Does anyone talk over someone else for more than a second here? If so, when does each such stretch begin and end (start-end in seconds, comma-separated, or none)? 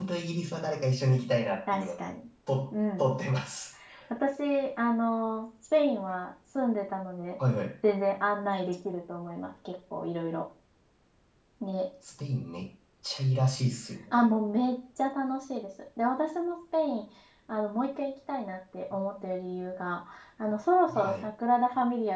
none